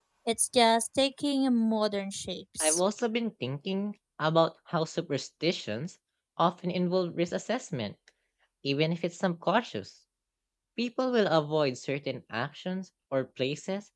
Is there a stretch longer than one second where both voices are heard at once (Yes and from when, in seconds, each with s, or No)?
No